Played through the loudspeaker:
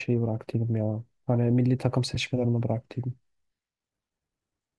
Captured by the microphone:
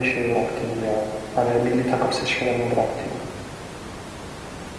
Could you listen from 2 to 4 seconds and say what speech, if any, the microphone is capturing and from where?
echo only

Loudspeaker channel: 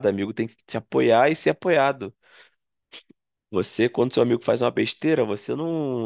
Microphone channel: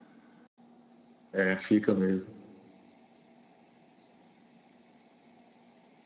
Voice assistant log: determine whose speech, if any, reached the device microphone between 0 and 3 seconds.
user only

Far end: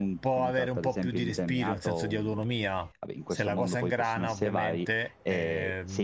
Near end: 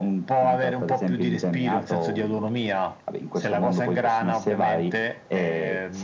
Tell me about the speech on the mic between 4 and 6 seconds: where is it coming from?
echo only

